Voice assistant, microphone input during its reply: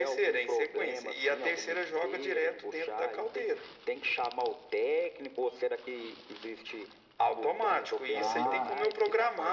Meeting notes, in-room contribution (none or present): present